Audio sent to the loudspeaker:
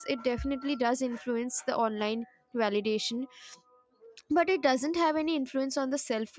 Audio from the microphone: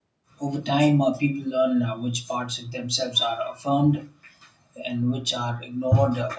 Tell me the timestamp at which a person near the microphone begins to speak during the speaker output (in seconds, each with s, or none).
0.4 s